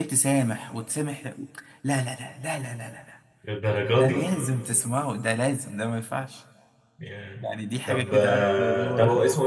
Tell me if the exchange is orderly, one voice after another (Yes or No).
No